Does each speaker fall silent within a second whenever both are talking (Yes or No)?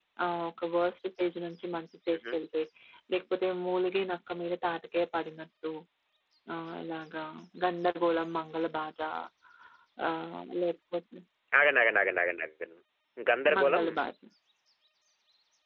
Yes